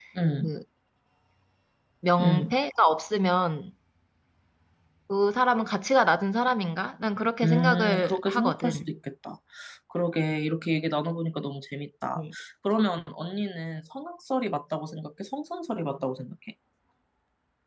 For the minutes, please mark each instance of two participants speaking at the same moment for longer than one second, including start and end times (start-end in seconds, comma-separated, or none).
7.4-8.9